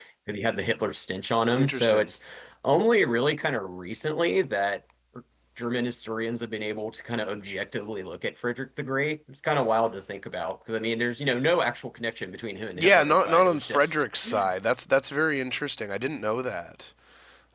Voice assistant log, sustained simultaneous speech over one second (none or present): present